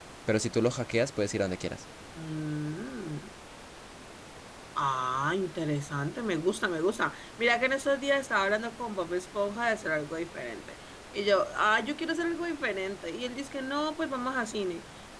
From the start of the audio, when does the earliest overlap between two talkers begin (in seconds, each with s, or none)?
none